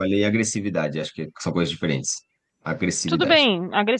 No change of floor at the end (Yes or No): No